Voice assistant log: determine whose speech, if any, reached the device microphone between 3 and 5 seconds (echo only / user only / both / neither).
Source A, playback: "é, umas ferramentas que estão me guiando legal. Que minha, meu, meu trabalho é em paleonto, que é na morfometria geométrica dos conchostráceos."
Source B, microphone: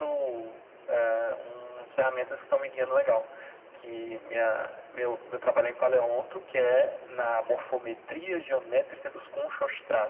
echo only